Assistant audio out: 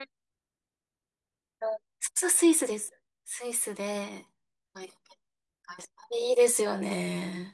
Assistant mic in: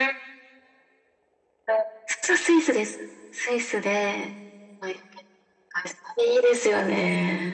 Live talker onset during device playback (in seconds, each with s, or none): none